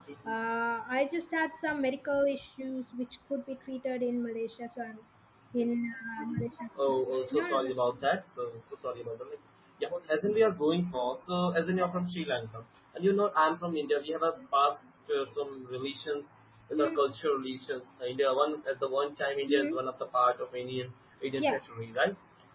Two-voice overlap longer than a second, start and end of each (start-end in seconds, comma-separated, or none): none